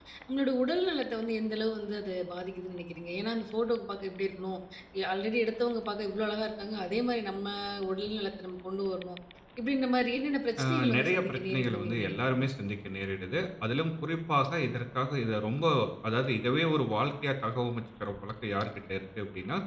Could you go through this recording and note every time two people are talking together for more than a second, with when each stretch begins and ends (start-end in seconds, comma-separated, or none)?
10.6-12.5